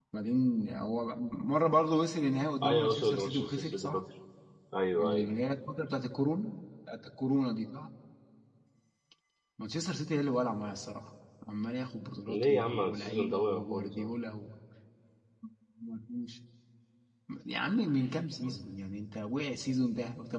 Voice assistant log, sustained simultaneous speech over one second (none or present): present